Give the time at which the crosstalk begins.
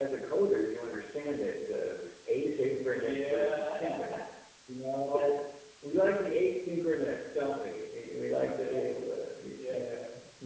2.9 s

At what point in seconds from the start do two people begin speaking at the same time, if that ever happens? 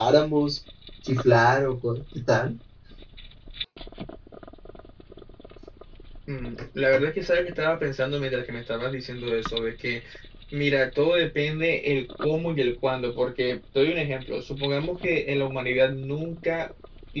none

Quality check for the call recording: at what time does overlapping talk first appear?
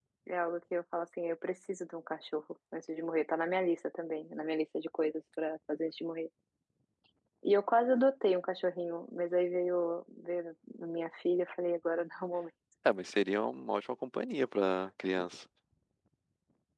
none

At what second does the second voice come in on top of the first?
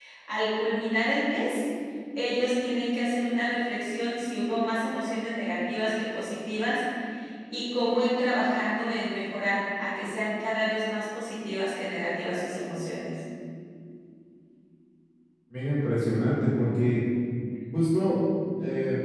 none

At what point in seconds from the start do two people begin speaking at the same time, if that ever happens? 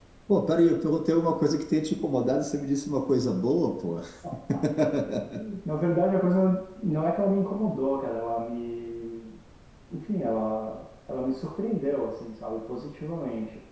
none

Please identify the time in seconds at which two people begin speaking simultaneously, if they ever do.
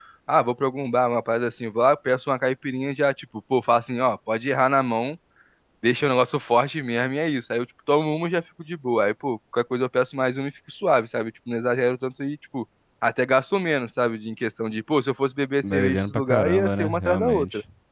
15.6 s

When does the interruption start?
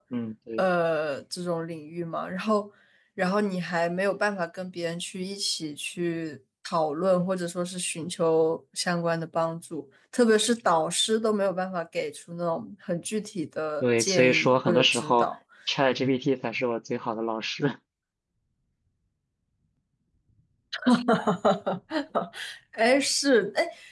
13.8 s

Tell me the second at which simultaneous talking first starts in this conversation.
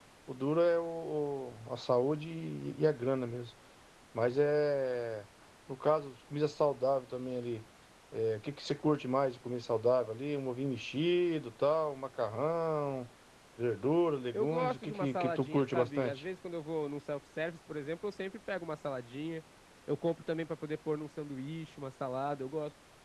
14.3 s

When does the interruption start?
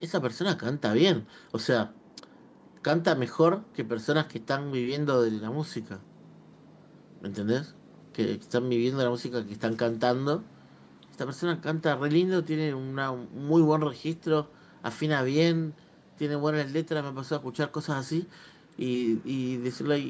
none

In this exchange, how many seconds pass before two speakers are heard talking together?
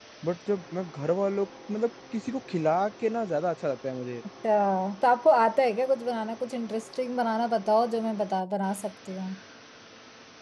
none

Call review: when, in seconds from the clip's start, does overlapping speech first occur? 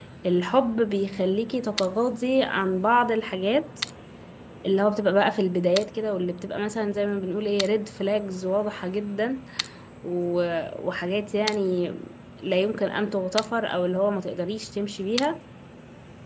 none

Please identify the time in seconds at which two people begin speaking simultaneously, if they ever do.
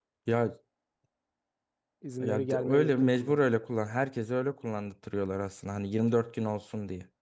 2.2 s

